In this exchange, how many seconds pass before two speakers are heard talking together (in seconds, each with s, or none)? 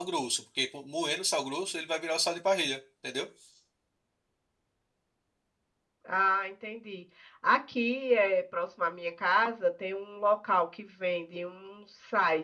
none